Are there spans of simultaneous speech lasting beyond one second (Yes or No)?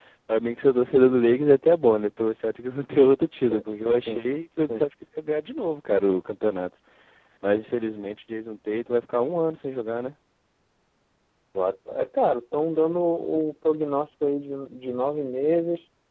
No